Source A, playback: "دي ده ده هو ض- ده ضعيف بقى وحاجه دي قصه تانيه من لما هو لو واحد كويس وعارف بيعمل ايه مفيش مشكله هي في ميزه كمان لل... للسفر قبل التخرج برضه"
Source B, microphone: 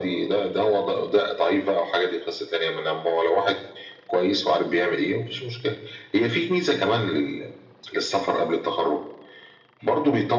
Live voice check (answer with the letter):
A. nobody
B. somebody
A